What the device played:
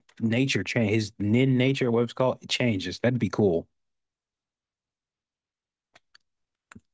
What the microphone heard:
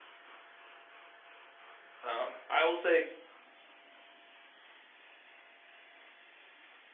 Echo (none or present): none